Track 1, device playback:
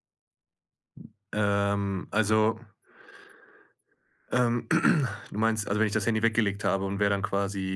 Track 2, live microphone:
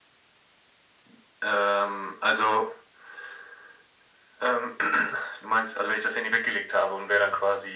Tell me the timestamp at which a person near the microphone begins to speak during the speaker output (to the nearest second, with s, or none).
none